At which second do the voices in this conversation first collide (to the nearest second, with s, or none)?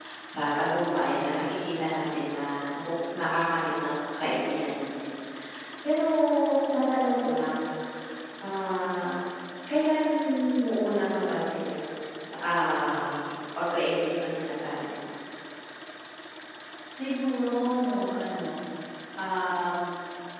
none